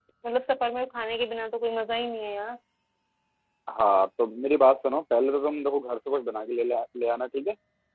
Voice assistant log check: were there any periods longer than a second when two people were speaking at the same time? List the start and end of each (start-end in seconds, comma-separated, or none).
none